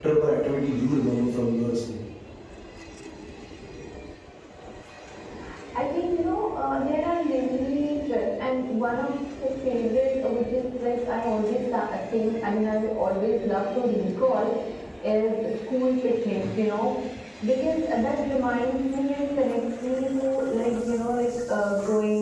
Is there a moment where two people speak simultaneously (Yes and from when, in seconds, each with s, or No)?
No